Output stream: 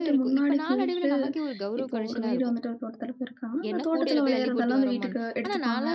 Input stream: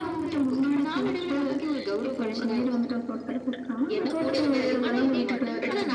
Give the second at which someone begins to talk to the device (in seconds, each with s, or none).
4.9 s